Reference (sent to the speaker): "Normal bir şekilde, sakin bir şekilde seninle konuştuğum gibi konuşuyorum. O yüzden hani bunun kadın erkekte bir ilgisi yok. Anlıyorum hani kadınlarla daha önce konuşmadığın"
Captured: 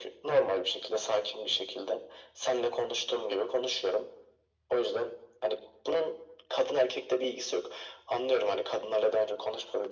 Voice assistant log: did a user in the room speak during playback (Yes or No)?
No